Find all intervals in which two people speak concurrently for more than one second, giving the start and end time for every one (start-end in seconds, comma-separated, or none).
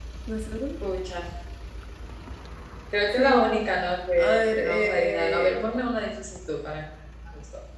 4.2-5.7